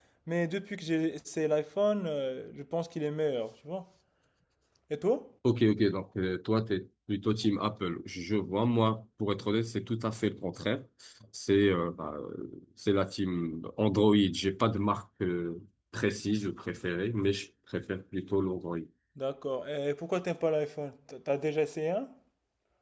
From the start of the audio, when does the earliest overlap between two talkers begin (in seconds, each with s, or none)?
none